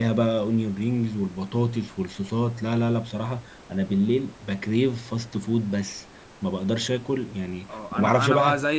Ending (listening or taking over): taking over